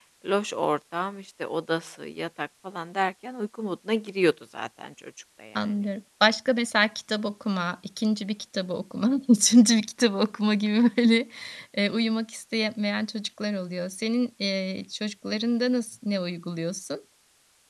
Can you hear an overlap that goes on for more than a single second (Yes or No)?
No